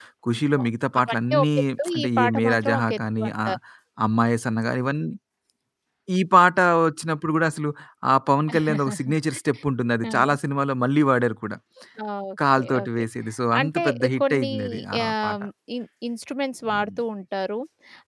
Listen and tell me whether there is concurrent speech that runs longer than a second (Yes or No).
Yes